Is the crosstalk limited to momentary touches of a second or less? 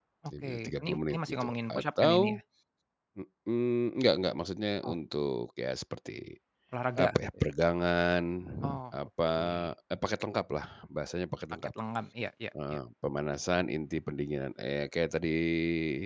No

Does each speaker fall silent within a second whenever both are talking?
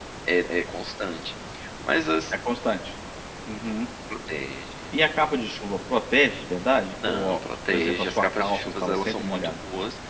No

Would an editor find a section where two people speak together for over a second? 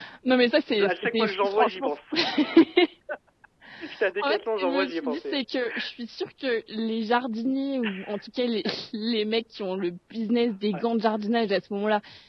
Yes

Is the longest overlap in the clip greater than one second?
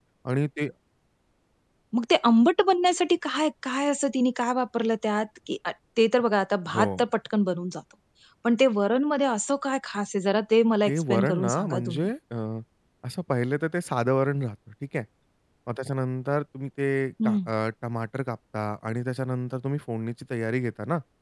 Yes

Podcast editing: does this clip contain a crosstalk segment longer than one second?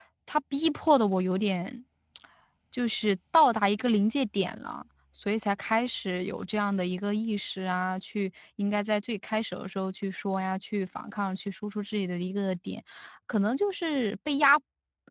No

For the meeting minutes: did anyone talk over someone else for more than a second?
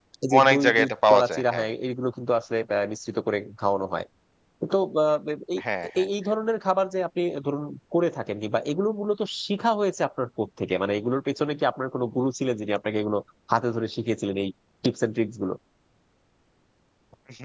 Yes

